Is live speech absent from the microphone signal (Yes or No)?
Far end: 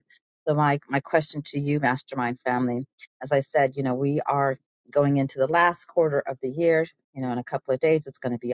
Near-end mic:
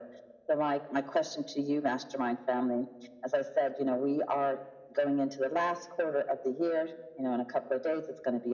Yes